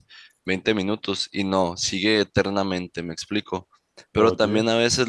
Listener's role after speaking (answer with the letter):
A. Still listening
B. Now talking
A